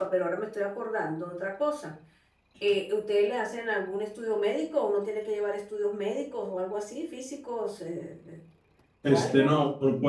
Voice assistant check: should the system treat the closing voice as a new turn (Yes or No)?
Yes